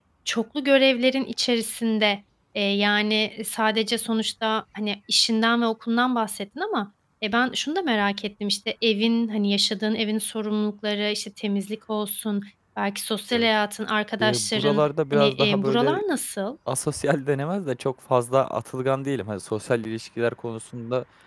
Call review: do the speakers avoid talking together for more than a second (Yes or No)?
No